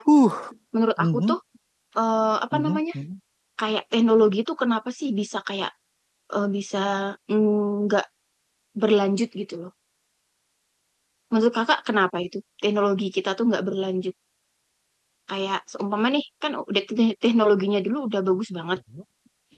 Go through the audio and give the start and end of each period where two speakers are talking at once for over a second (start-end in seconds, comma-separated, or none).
none